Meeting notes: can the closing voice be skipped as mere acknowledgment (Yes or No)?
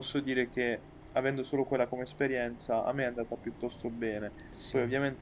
Yes